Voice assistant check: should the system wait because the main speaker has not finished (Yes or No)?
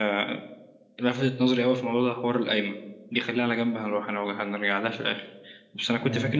Yes